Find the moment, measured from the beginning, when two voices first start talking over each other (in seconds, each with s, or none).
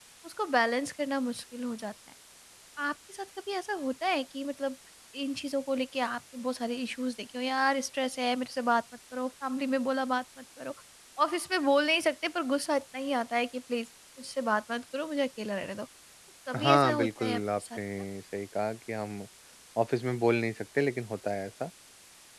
16.5 s